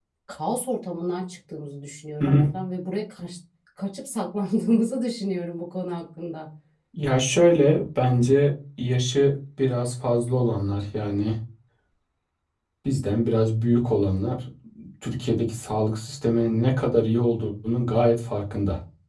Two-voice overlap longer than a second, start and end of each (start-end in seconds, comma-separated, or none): none